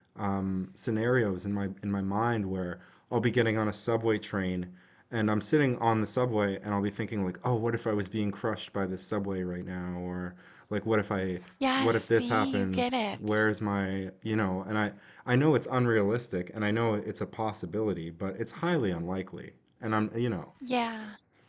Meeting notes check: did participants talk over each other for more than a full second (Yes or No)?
Yes